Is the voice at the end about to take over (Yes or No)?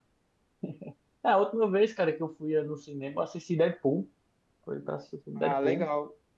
Yes